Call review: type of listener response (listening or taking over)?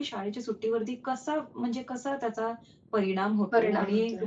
listening